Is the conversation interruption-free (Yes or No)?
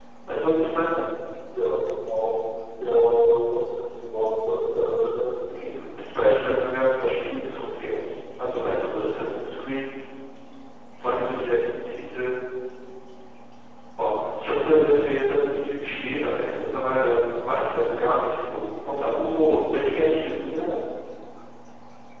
Yes